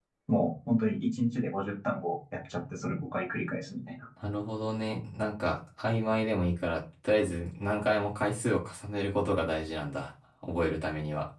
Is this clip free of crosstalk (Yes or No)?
Yes